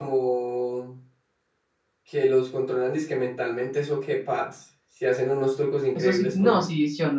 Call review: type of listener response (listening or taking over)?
taking over